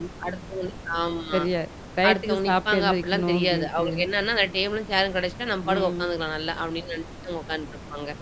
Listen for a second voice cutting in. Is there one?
Yes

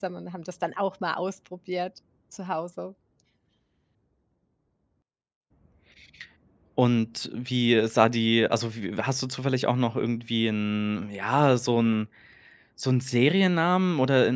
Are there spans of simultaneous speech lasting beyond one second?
No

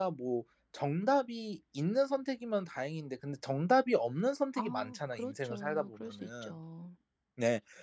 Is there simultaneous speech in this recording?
Yes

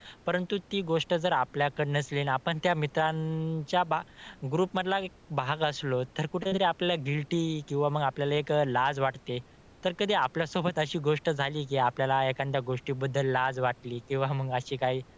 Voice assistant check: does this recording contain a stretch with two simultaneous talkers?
No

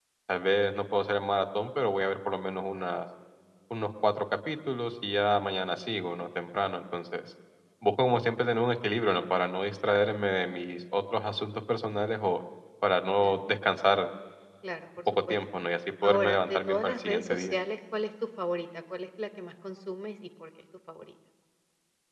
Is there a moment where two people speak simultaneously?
Yes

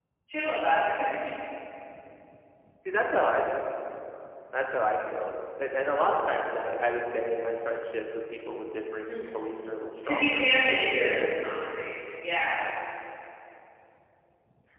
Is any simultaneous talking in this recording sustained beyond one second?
No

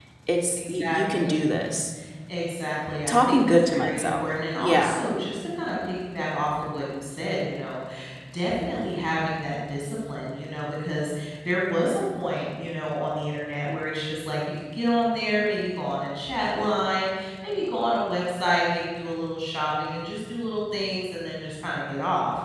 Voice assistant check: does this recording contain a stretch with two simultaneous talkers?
Yes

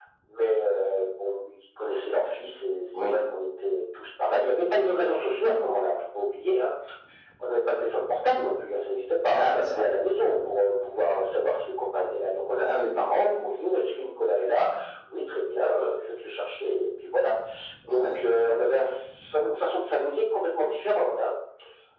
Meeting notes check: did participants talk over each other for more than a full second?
No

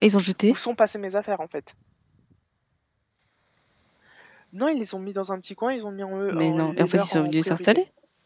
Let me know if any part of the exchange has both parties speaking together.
Yes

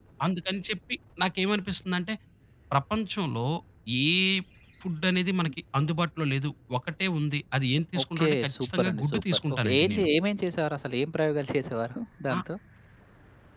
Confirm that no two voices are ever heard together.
No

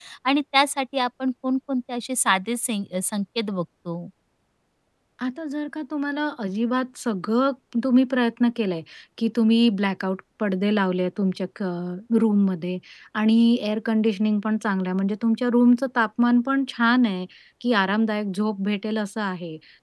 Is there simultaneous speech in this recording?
No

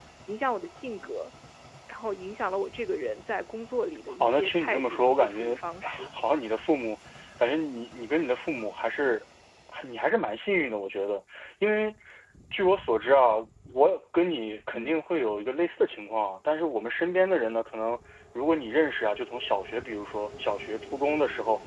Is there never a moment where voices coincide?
No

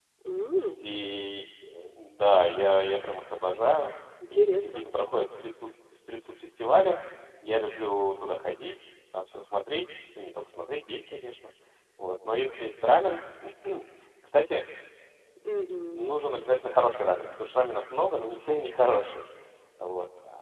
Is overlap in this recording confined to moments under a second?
Yes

